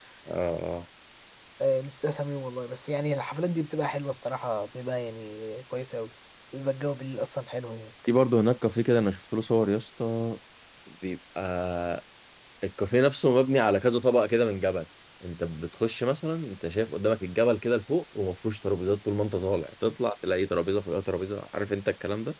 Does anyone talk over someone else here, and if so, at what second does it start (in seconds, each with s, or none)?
none